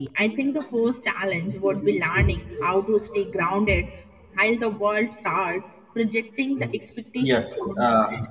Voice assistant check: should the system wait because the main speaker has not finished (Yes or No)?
No